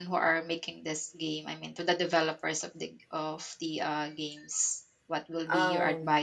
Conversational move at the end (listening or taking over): listening